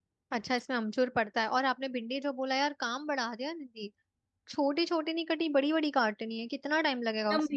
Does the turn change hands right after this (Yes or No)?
Yes